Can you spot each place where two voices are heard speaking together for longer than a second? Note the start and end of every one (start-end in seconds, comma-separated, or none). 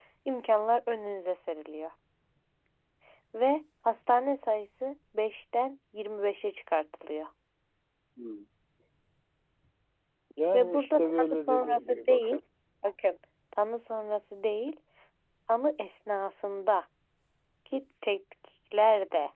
10.5-12.4